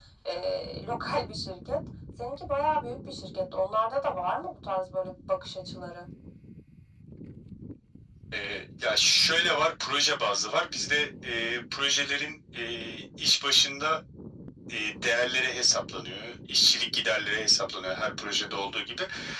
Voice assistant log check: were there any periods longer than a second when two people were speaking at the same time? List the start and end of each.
none

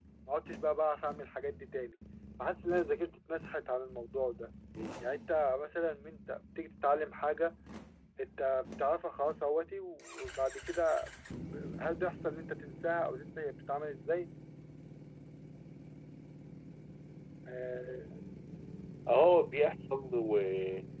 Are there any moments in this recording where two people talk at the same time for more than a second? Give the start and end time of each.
none

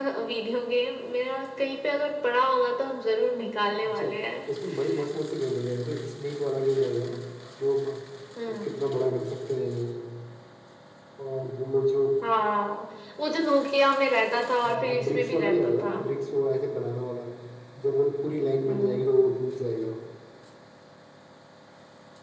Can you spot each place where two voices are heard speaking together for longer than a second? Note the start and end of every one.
14.6-16.0

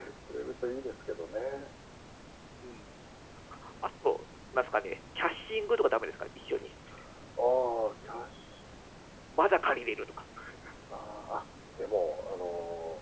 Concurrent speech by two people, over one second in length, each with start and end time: none

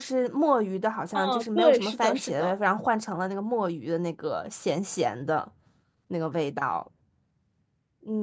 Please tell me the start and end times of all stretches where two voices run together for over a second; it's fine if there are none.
1.1-2.5

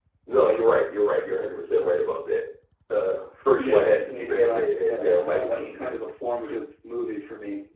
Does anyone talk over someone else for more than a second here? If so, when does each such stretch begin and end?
3.6-5.9

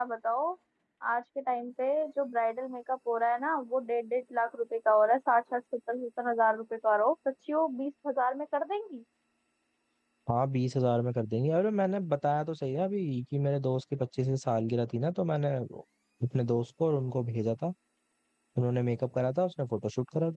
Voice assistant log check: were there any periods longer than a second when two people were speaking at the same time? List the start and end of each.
none

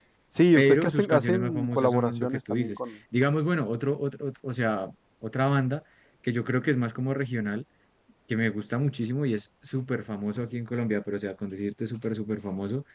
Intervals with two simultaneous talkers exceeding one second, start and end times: 0.6-2.8

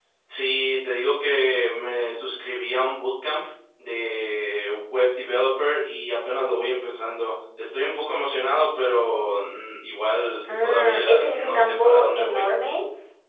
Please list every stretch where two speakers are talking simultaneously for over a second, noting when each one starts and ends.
10.5-12.5

